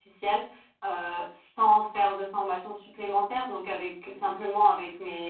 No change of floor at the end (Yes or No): Yes